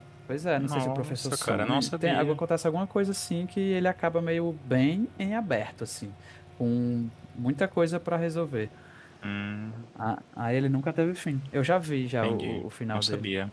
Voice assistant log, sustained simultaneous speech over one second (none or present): present